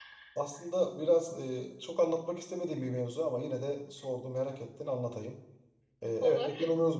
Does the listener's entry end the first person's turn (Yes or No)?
No